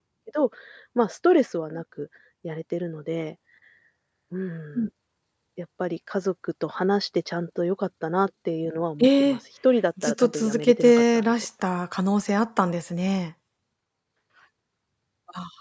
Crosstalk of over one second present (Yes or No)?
Yes